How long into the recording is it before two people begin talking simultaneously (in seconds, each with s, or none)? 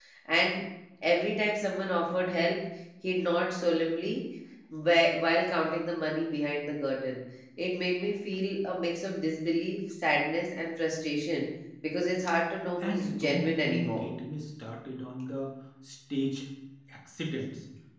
12.8 s